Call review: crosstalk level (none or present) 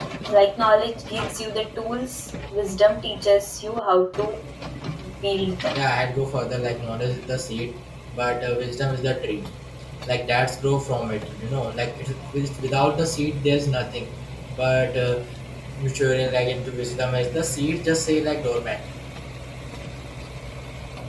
none